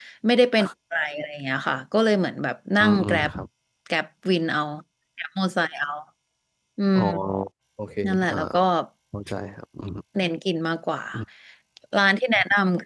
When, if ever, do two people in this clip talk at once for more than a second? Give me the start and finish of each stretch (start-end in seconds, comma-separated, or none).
none